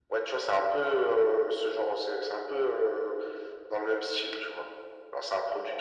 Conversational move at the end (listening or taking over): listening